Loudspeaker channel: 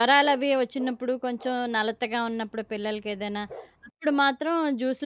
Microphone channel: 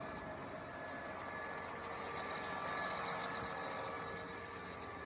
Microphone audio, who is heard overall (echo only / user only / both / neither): neither